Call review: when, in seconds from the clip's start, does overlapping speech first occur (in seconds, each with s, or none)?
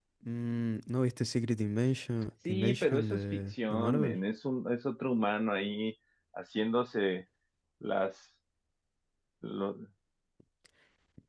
2.5 s